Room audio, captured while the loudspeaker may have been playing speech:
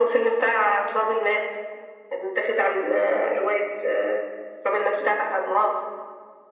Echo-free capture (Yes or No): No